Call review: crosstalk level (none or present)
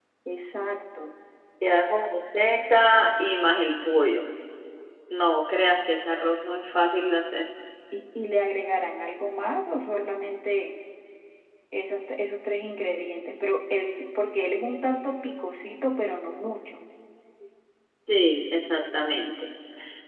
none